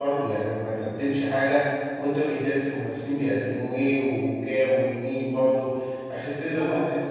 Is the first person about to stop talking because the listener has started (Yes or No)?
No